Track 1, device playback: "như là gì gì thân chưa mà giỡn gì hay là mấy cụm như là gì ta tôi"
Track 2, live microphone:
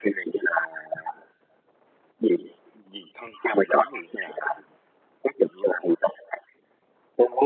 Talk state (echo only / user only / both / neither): echo only